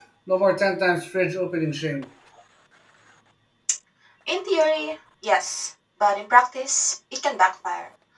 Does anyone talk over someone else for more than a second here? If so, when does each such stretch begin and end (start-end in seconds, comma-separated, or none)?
none